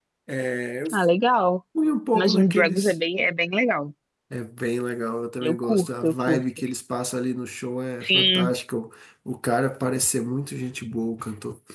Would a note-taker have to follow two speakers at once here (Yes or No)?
Yes